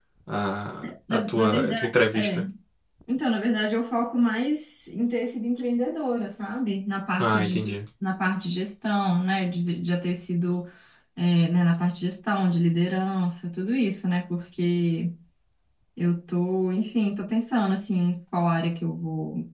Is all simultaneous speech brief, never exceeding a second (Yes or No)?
No